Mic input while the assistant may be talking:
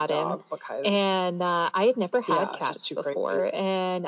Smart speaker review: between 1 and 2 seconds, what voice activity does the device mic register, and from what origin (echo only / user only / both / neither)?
echo only